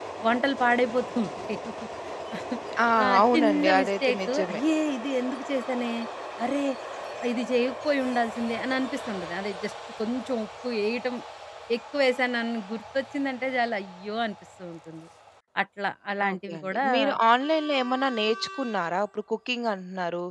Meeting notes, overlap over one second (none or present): present